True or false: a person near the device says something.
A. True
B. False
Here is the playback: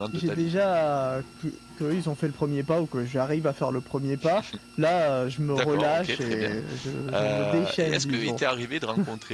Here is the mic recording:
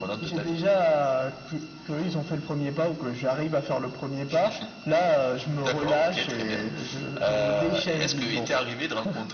B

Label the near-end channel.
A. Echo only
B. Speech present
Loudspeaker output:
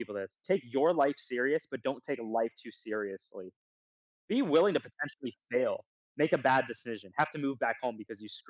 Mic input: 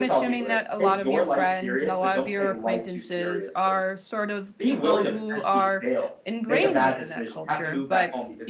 B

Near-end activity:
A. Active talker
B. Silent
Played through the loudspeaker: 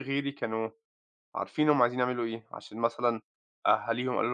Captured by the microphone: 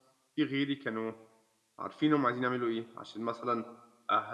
B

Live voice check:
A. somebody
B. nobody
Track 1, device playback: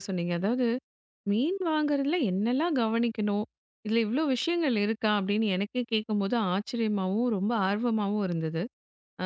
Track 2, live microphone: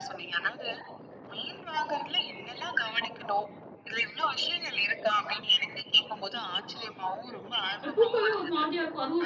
A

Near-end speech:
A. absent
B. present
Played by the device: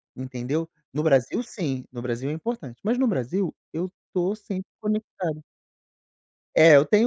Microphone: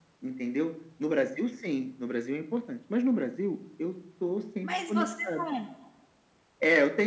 B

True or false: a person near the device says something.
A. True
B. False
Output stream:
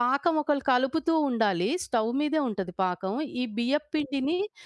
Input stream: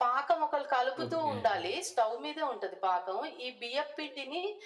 A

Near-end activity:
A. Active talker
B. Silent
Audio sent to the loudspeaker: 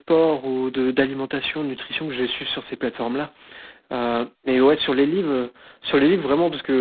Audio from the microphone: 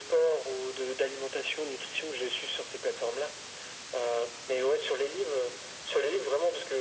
B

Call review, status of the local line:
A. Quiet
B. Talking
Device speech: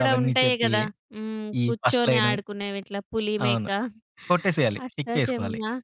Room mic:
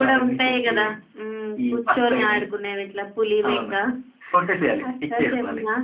A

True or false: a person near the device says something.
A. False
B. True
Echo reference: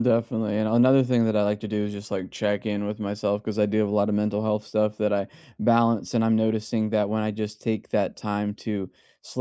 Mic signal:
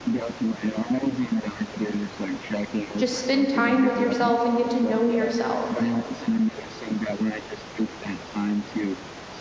B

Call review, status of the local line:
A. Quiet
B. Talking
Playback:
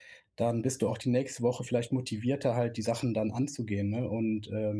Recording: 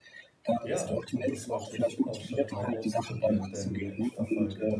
B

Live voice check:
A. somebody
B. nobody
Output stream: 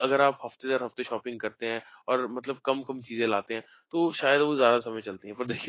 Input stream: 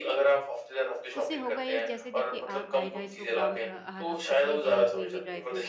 A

